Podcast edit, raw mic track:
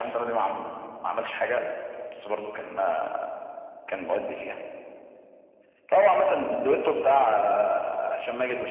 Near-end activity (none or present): none